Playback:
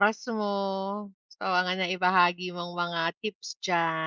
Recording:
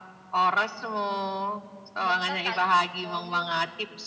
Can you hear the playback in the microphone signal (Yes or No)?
Yes